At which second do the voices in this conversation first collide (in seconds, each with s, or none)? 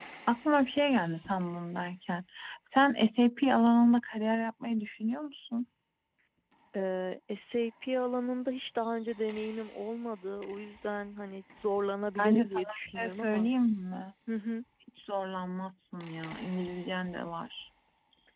12.2 s